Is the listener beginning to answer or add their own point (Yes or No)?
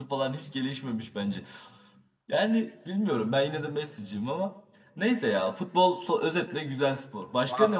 Yes